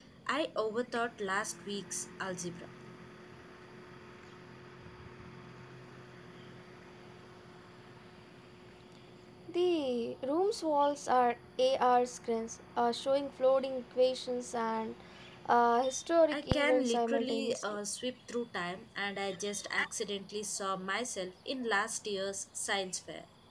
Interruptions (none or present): present